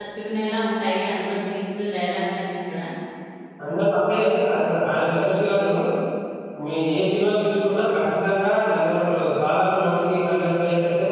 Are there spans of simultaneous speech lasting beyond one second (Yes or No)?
No